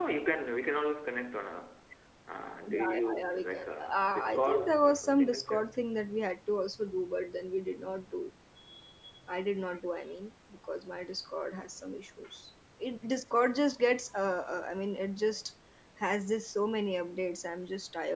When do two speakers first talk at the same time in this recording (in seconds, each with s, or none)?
2.7 s